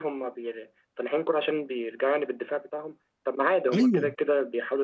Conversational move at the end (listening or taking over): listening